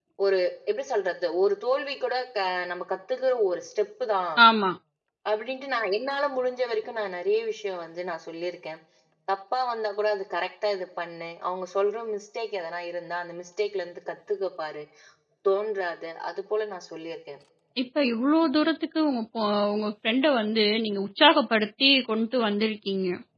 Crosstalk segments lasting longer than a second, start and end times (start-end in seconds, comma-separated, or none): none